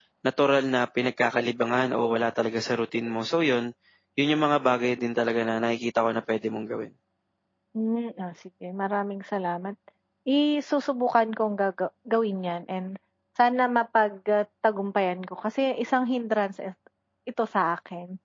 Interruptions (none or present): none